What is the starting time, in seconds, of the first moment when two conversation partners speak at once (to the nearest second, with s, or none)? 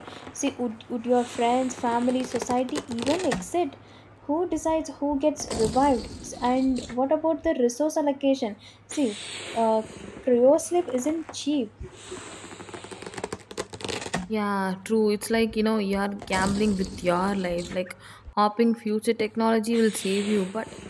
none